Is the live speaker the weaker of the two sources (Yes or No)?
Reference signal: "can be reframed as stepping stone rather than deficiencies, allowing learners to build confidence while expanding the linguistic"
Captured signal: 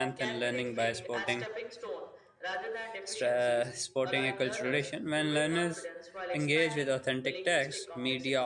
No